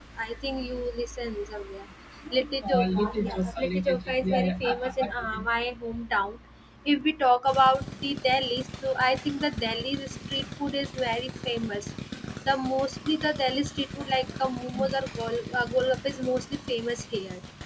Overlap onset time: 2.7 s

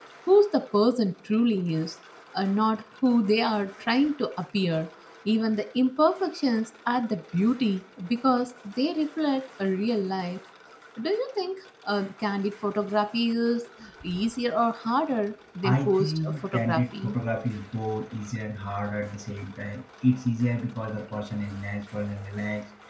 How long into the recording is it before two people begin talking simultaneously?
15.6 s

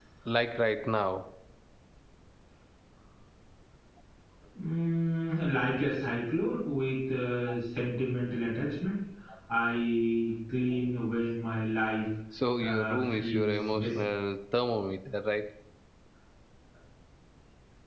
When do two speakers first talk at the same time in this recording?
12.6 s

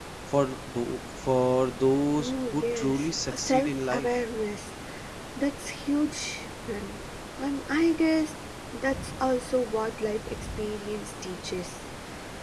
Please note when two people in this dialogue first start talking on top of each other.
2.2 s

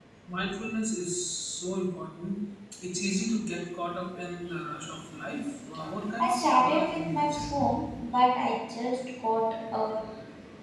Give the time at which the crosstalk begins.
6.2 s

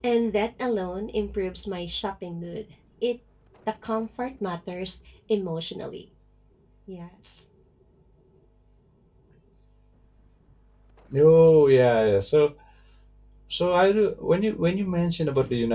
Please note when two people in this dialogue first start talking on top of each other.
none

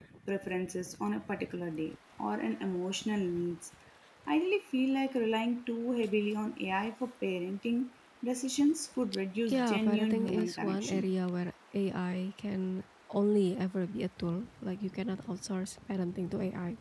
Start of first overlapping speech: 9.5 s

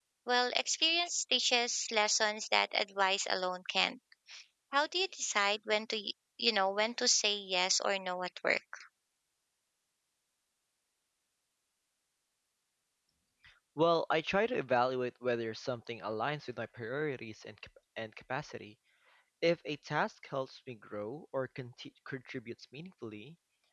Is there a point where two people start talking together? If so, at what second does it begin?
none

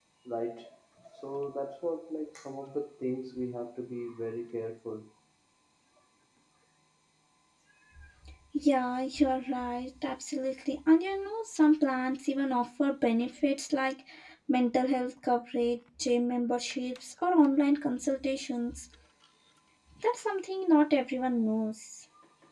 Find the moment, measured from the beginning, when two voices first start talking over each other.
none

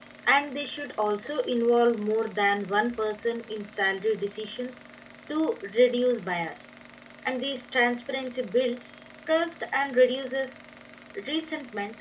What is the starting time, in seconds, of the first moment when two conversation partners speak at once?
none

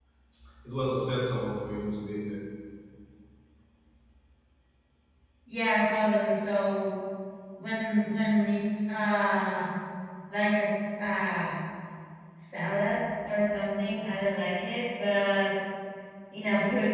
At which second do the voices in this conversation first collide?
none

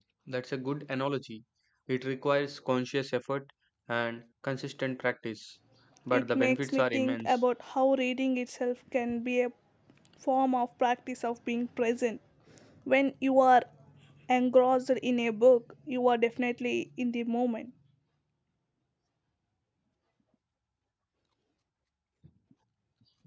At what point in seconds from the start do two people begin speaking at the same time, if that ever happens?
6.1 s

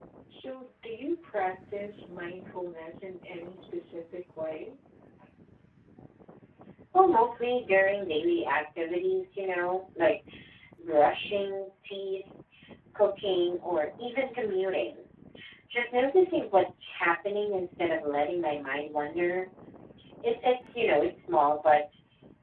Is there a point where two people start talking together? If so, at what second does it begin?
none

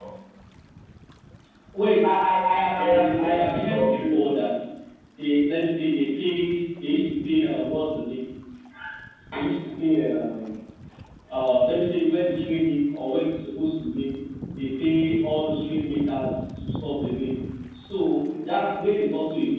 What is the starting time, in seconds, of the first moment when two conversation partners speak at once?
2.7 s

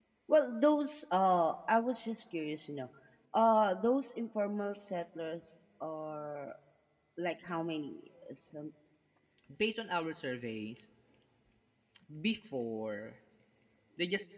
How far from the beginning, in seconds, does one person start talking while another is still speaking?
none

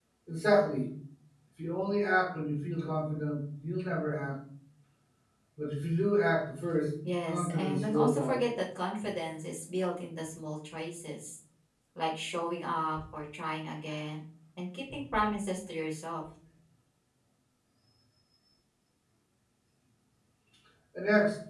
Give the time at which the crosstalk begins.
7.0 s

